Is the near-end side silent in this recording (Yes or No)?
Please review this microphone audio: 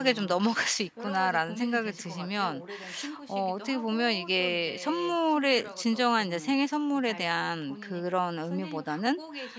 No